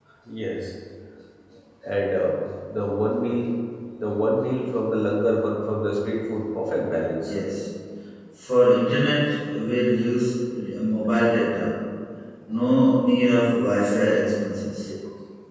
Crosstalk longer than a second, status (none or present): none